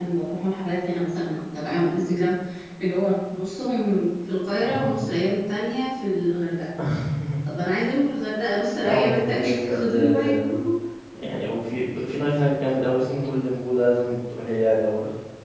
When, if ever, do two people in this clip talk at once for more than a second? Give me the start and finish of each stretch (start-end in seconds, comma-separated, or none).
8.8-10.3